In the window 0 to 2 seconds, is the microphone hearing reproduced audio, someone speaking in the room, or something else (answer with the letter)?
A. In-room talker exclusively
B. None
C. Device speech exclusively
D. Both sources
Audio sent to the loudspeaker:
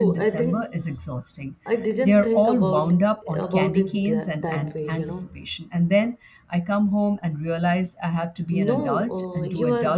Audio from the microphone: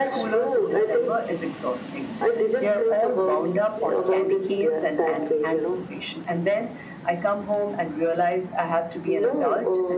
C